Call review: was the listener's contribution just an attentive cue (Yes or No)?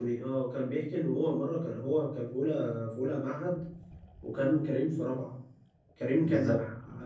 Yes